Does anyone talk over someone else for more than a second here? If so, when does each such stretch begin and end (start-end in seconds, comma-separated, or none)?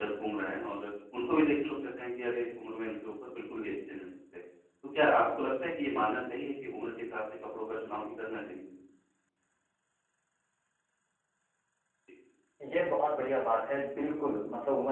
none